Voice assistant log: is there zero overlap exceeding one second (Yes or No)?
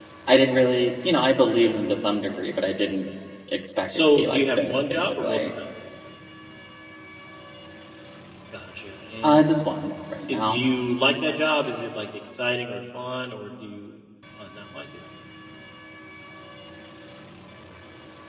No